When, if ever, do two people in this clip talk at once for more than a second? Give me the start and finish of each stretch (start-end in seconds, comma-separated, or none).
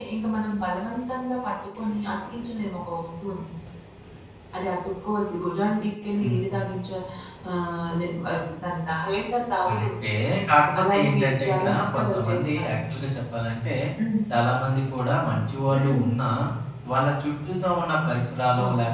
10.8-12.7